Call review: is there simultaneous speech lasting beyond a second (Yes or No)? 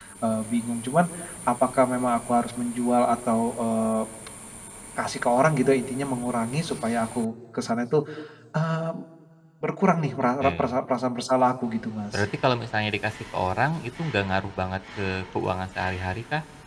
No